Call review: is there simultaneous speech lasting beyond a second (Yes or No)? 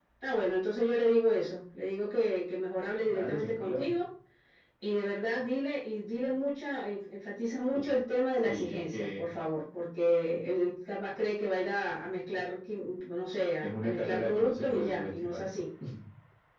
Yes